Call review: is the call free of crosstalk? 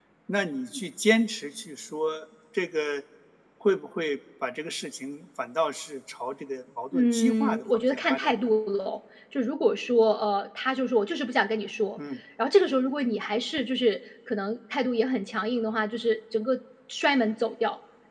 No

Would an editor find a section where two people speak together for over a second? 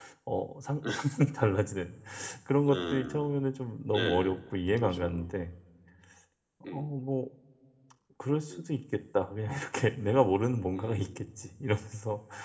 Yes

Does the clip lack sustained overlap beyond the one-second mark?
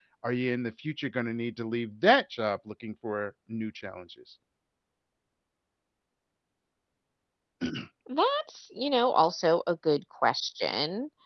Yes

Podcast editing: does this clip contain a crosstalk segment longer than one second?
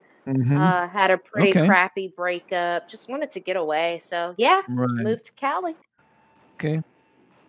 No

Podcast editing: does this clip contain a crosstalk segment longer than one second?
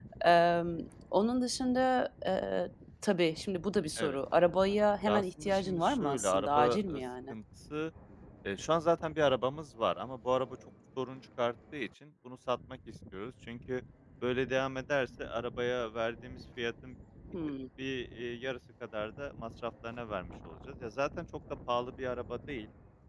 Yes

